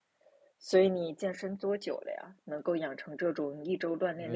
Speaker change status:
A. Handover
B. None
A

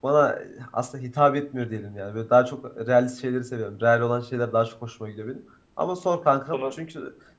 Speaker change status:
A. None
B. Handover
A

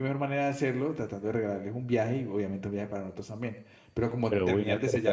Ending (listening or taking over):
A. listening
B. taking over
B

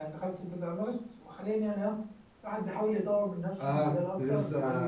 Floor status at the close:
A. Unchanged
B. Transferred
B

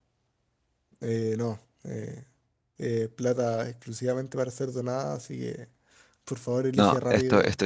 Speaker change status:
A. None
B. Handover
B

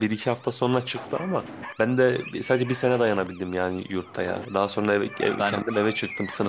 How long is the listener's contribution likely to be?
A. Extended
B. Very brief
B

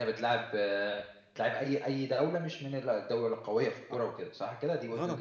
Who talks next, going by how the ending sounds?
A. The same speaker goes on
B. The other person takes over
B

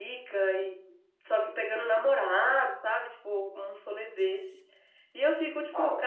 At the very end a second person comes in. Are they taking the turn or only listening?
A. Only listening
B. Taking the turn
A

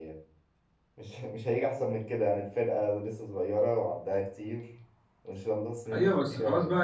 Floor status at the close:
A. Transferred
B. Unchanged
A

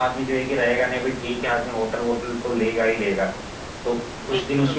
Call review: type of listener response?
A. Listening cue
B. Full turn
A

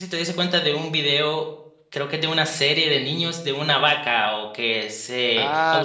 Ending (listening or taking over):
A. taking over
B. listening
A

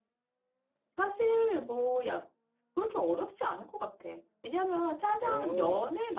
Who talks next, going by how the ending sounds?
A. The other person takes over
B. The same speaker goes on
B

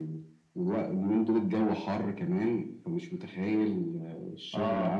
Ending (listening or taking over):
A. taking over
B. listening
B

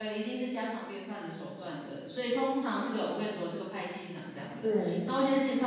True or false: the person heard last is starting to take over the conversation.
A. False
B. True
A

